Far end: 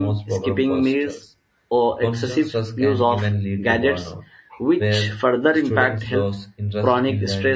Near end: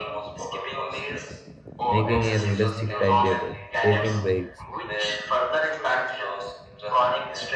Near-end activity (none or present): present